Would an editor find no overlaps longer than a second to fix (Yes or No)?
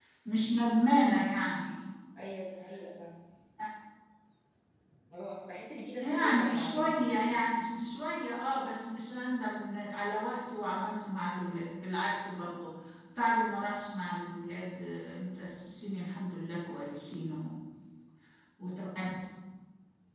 No